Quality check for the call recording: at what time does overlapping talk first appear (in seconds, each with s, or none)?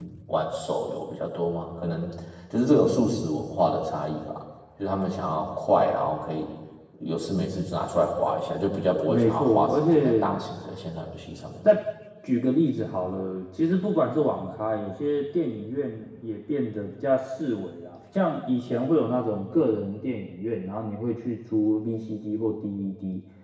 9.1 s